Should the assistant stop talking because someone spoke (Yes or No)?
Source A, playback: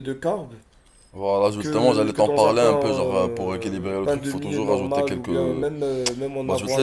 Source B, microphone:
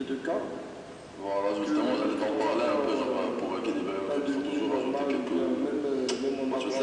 No